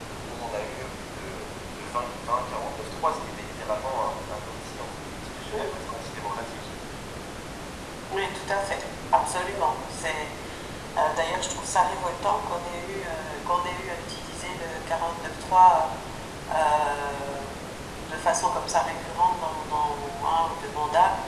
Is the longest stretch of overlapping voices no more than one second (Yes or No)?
Yes